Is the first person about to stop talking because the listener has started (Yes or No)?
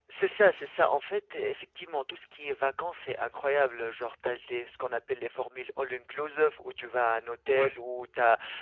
No